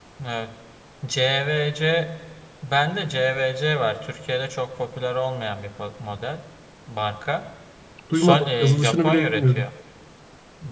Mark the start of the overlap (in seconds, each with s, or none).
8.1 s